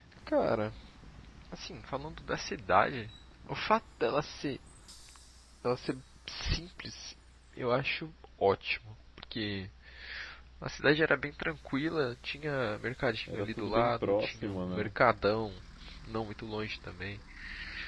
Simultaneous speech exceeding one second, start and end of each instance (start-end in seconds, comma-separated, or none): 13.3-14.9